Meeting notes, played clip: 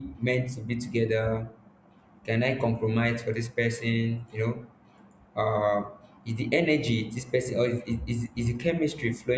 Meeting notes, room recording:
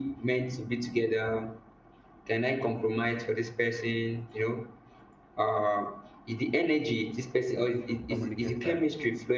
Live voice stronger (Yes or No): No